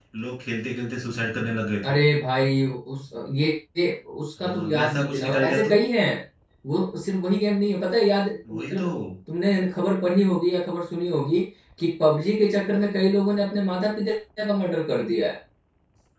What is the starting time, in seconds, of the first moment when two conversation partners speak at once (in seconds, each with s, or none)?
4.4 s